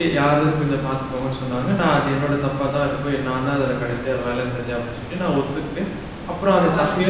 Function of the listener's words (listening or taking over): listening